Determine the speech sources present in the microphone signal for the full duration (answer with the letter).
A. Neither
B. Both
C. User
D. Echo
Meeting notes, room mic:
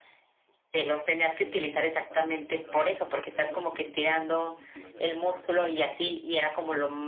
B